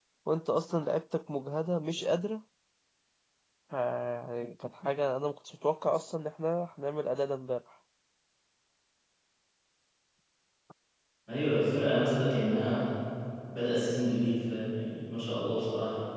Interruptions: none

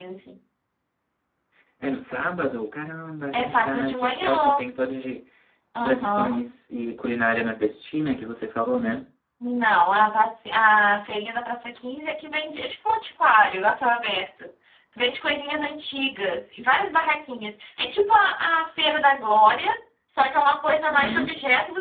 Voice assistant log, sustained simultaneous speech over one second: present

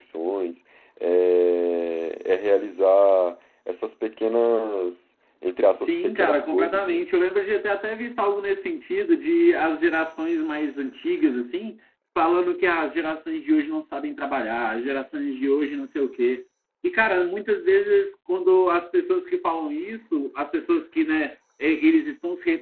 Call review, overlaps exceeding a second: present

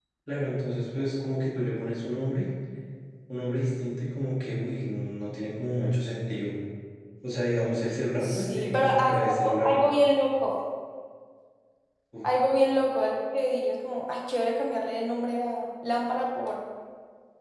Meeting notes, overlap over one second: present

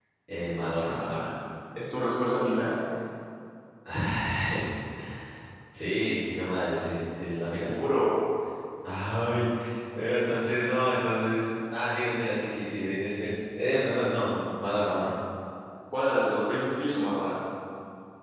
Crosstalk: none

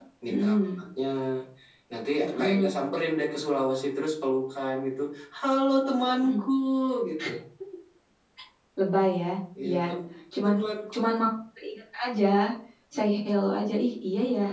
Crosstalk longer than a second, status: none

